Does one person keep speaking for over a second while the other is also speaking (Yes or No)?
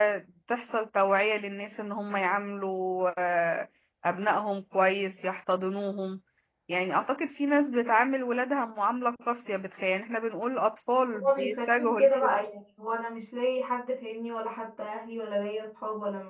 Yes